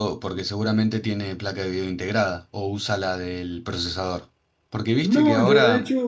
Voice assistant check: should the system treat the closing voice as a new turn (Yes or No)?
Yes